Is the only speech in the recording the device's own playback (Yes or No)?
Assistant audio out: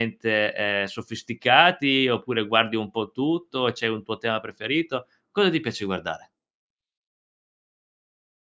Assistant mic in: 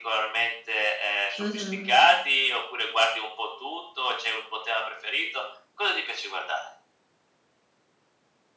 No